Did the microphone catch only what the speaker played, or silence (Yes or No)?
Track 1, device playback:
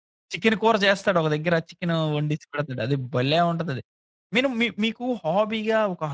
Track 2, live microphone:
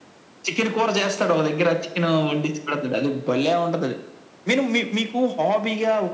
Yes